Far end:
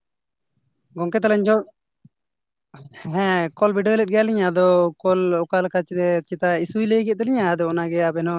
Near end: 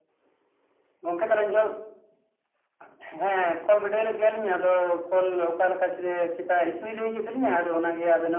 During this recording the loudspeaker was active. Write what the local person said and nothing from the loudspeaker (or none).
none